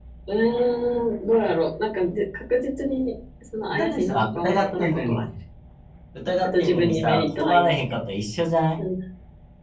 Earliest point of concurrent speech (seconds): 4 s

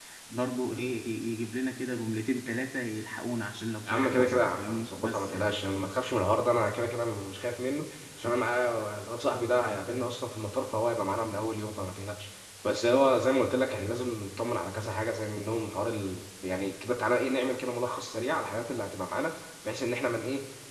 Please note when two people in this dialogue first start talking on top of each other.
4 s

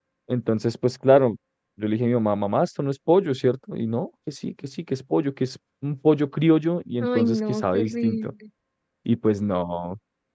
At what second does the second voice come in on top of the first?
7 s

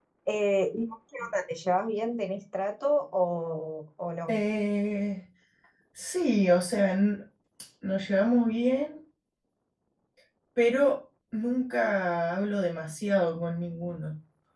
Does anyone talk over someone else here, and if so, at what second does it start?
none

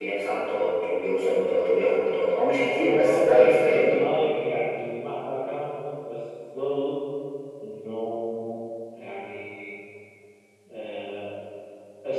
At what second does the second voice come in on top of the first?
3 s

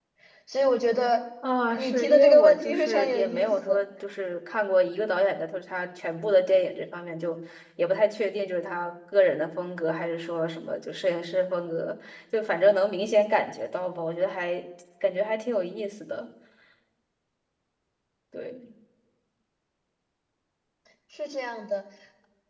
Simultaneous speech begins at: 2 s

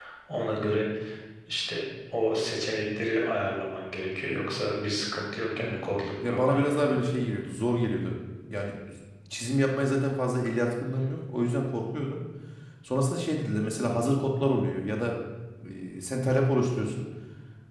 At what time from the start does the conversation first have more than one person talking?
6 s

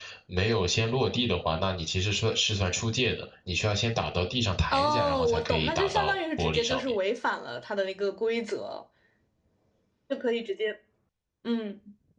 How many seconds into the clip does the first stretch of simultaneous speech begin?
5 s

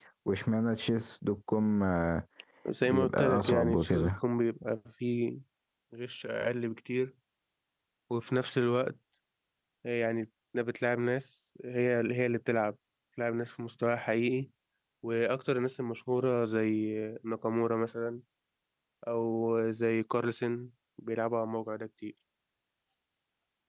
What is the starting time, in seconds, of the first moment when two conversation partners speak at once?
3 s

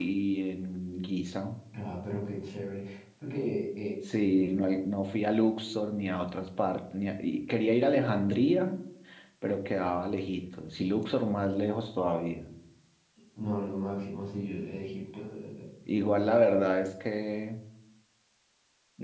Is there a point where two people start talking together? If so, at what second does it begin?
none

